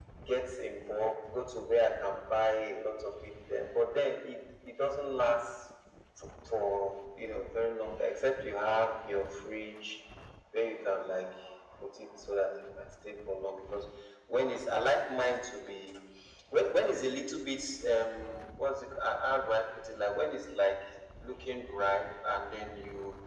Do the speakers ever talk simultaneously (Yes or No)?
No